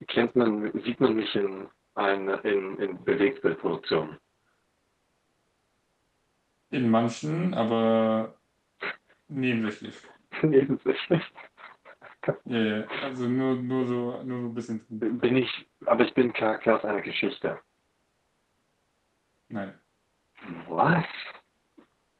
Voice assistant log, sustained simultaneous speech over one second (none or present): none